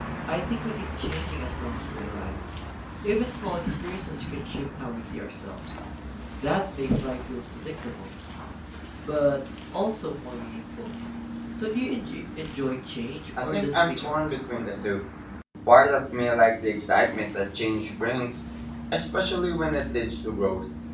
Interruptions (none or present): present